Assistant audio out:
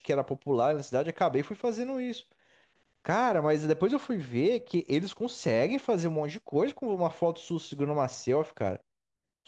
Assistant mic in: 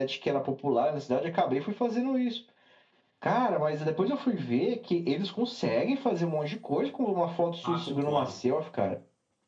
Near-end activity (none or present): present